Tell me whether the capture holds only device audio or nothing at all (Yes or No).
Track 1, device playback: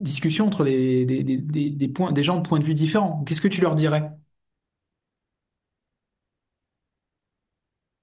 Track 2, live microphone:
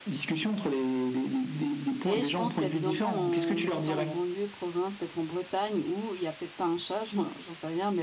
No